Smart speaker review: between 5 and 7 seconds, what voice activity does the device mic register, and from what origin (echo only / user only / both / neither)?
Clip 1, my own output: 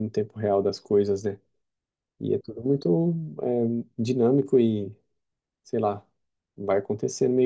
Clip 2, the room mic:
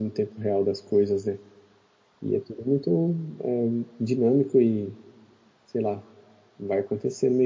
echo only